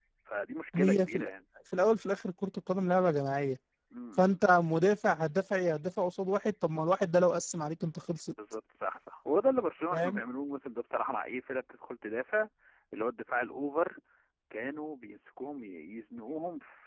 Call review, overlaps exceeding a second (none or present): none